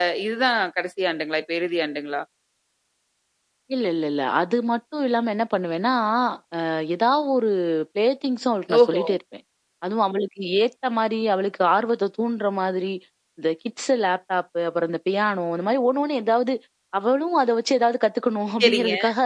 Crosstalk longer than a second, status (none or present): none